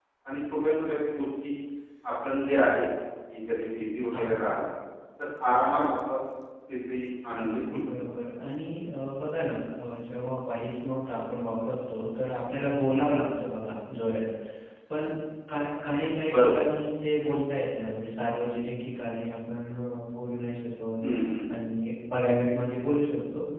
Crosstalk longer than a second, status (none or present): none